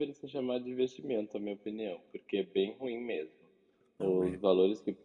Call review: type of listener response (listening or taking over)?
listening